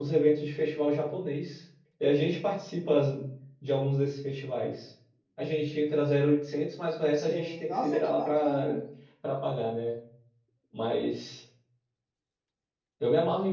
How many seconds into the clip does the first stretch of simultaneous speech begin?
7.2 s

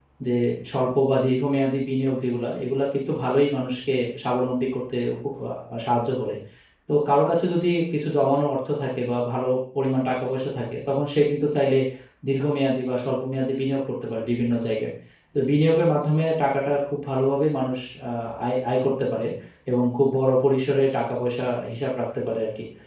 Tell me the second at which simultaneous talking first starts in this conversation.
none

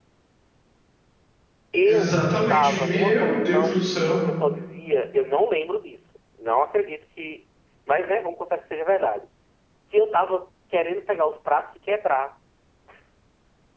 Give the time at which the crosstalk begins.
1.9 s

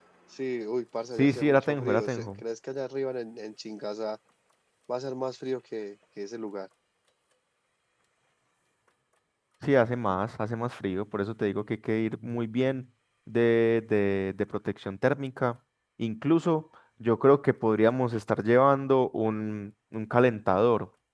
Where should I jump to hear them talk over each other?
1.2 s

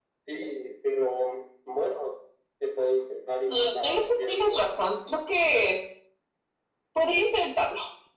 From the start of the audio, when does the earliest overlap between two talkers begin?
3.5 s

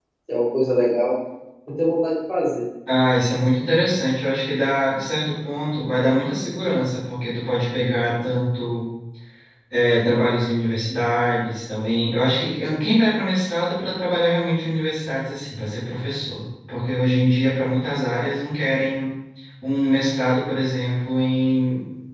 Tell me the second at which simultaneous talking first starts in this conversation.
none

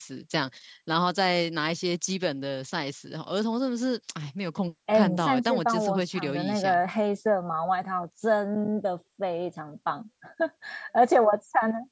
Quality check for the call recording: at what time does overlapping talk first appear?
4.9 s

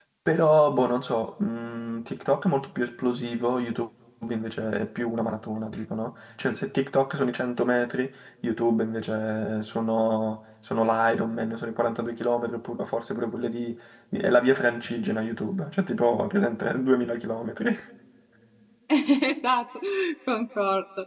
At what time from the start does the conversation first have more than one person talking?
none

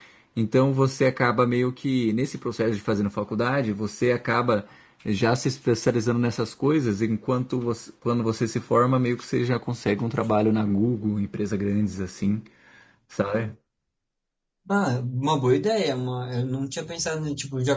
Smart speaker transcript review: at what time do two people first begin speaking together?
none

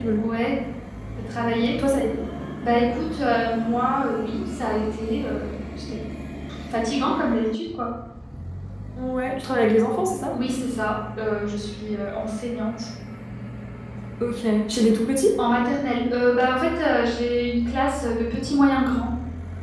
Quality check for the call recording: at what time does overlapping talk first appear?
none

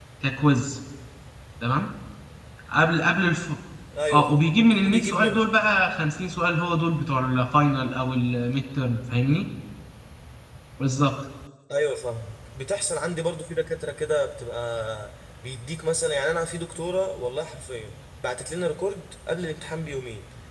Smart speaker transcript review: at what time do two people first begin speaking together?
4.1 s

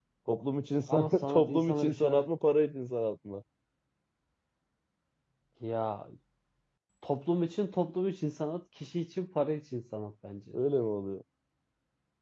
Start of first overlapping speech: 0.9 s

